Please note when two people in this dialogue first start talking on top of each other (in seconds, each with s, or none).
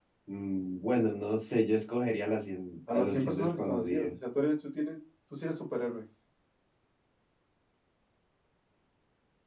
2.9 s